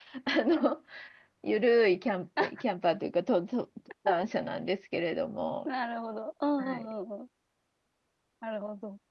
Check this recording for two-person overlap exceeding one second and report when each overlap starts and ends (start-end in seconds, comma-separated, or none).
none